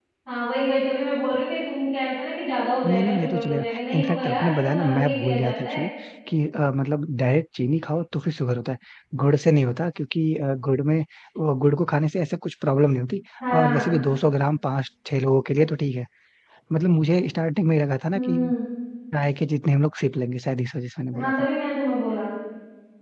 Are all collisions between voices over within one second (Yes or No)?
No